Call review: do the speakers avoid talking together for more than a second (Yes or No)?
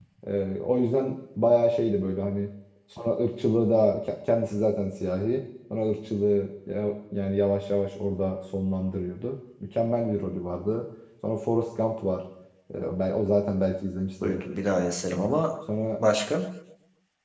Yes